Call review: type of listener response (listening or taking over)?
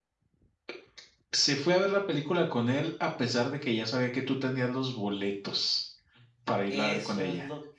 taking over